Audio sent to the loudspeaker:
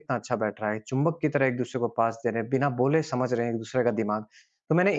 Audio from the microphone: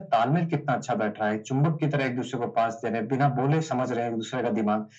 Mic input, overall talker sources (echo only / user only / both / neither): echo only